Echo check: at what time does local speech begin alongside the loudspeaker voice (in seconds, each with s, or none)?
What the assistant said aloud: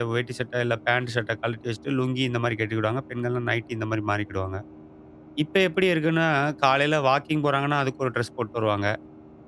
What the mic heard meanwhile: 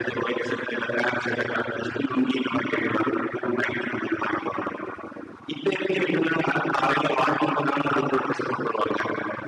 none